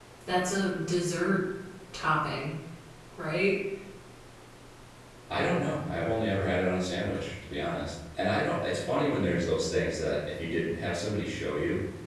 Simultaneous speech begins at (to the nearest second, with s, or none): none